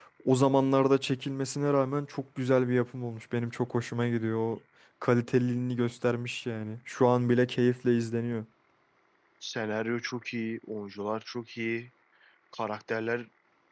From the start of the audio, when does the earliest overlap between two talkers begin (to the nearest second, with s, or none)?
none